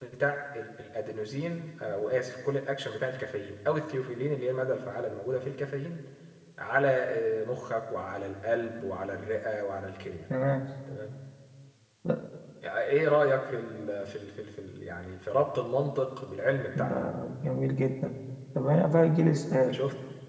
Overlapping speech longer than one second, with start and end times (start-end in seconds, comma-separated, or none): none